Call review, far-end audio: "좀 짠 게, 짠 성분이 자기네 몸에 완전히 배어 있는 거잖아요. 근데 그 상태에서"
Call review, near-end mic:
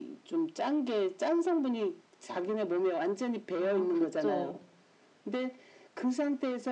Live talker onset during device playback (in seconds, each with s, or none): 3.5 s